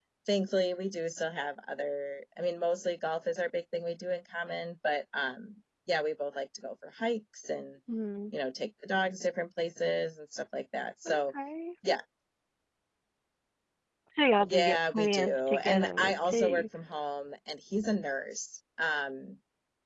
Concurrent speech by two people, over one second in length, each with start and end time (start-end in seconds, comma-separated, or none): 14.5-16.6